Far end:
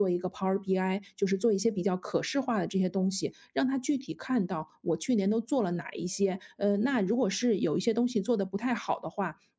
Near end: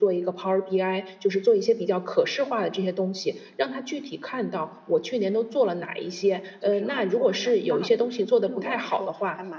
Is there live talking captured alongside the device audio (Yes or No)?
Yes